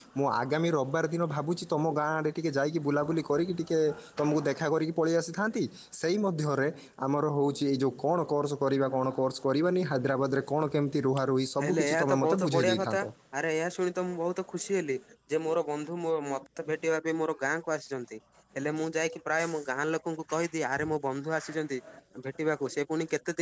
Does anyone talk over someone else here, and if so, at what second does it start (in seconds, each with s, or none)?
11.6 s